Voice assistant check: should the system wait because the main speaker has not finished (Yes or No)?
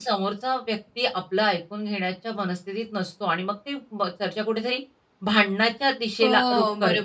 Yes